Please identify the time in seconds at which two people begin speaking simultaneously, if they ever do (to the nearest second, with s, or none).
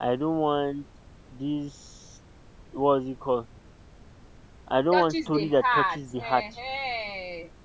5 s